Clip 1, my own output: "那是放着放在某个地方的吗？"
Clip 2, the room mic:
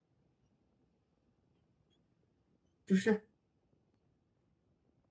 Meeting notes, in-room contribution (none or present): present